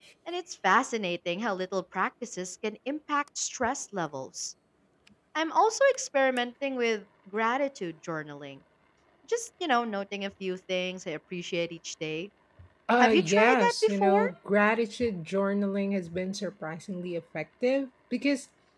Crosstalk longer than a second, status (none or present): present